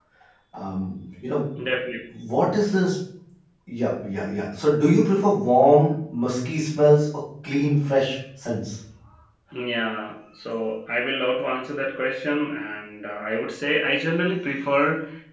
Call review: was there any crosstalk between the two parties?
No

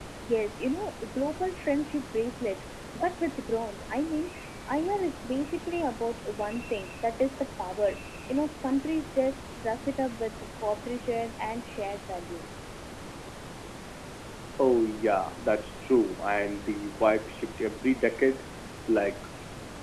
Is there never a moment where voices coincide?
Yes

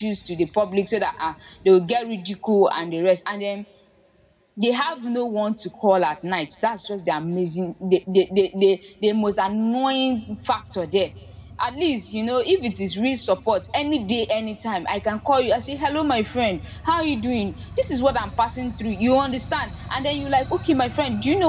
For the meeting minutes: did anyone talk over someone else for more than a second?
No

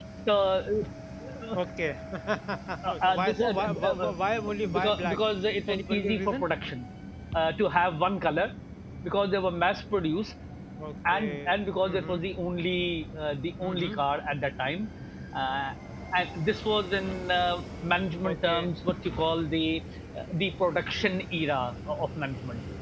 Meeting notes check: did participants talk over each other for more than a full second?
Yes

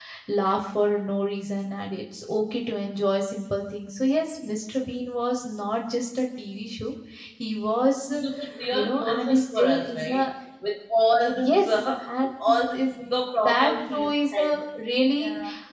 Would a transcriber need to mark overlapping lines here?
Yes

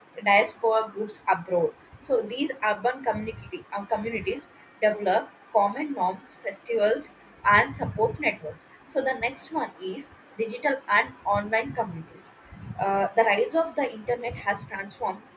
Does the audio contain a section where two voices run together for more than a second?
No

